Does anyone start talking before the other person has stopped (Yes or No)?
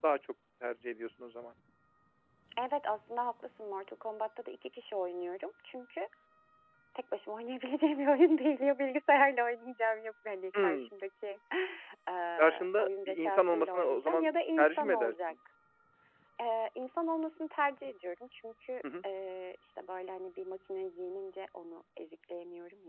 Yes